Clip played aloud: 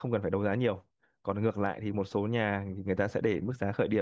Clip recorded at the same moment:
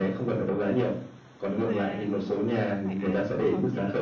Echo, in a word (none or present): present